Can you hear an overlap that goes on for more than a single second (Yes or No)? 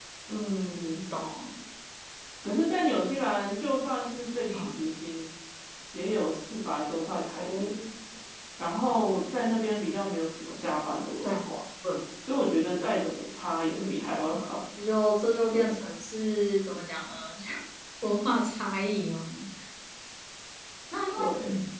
No